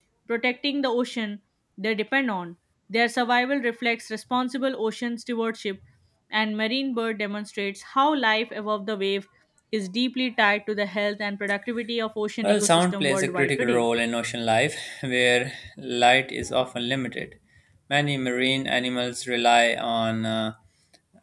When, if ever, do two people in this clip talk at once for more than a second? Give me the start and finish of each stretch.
12.4-13.8

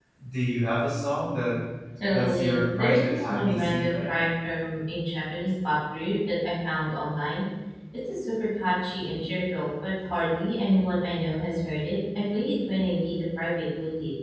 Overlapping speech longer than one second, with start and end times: 2.1-4.1

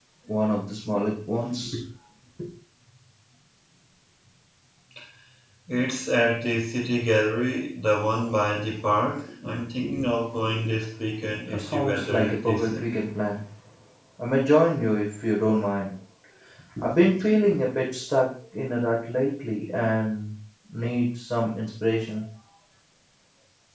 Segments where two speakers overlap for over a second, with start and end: 11.5-12.8

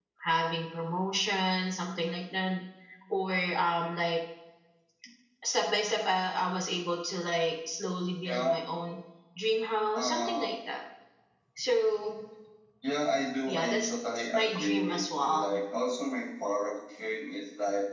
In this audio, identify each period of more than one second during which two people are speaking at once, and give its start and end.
14.3-15.6

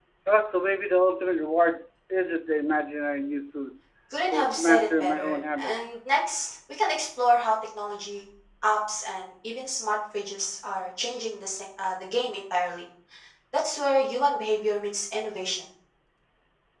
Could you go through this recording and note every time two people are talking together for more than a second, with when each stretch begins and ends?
4.3-5.7

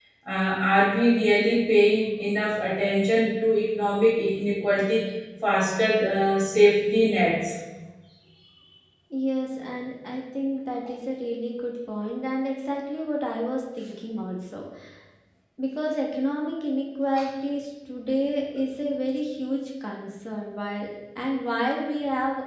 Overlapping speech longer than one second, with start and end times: none

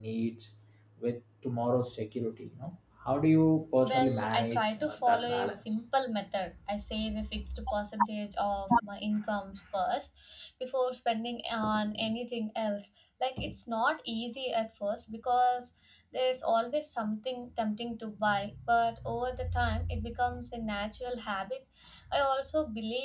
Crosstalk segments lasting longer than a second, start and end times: 3.8-5.6

